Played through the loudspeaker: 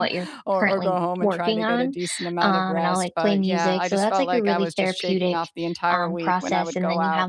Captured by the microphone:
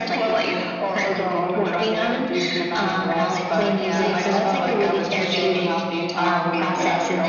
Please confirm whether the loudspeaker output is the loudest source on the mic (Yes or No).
Yes